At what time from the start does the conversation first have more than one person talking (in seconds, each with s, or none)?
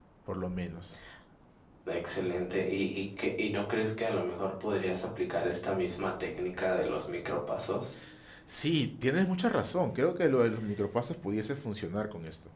none